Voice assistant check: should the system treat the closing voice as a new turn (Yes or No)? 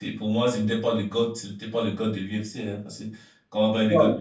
Yes